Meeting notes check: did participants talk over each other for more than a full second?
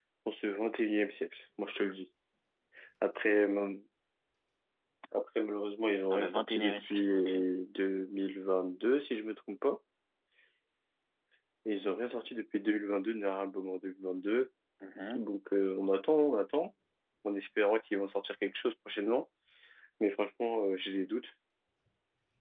Yes, from 6.1 s

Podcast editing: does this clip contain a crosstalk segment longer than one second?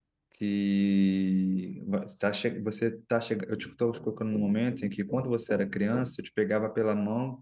No

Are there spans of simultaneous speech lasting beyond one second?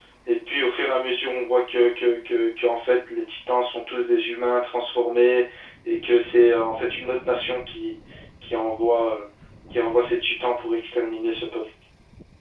No

